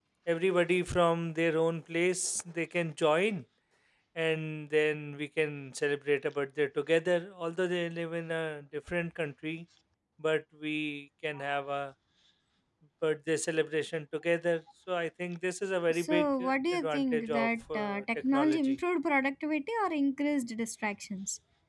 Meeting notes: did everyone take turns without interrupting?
No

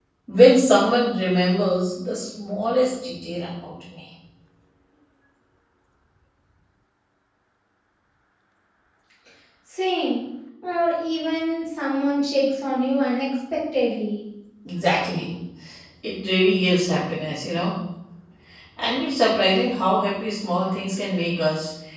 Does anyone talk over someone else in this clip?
No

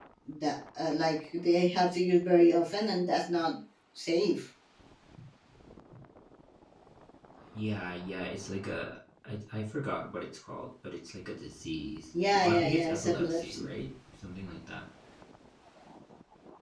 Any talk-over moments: Yes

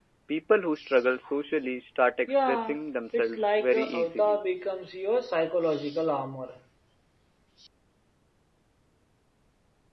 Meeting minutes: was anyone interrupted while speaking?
Yes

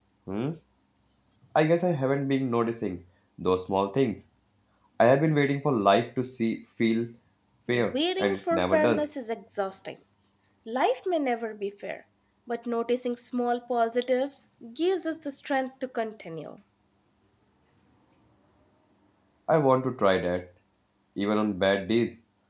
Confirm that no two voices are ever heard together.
No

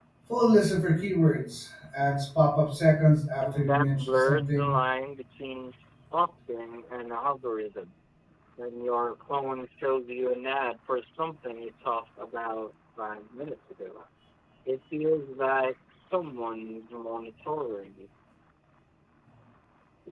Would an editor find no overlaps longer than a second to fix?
No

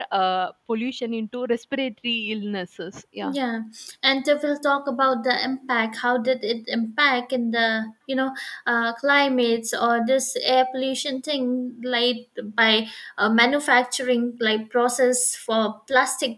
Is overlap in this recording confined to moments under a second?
Yes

